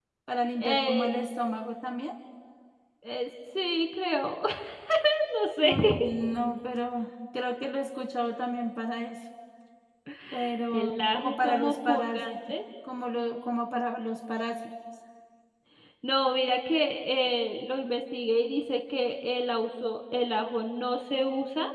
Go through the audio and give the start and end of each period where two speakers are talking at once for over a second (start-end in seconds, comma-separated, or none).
10.7-12.4